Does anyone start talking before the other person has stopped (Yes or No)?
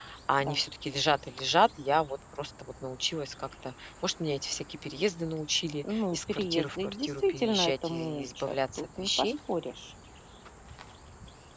Yes